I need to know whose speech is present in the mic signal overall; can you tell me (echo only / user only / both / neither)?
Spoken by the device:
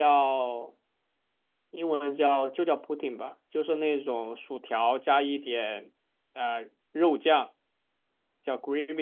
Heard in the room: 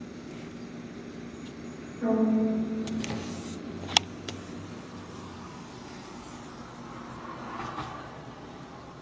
user only